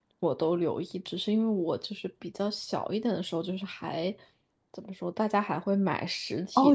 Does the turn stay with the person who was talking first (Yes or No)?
No